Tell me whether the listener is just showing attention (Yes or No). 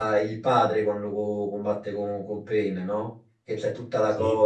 Yes